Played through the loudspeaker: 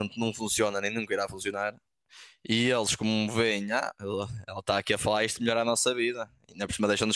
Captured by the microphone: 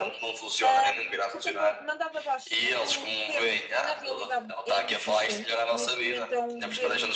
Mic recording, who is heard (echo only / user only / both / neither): both